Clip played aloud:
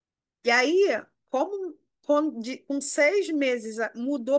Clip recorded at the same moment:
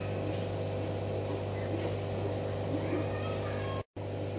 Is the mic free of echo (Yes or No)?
Yes